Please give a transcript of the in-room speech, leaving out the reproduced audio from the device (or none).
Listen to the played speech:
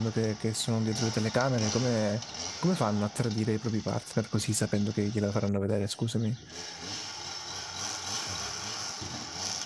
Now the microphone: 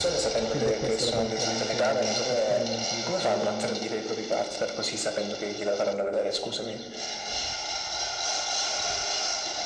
Quindi è questa la componente dell'intrattenimento di questo programma.